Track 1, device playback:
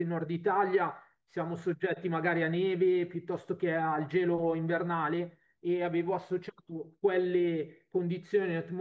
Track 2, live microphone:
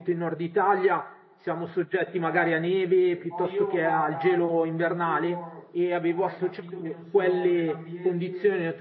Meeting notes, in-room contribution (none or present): present